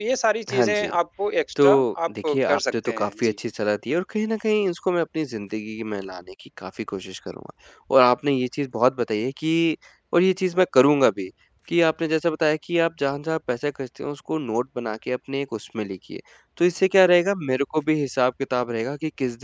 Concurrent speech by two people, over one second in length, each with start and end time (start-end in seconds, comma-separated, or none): 1.6-3.3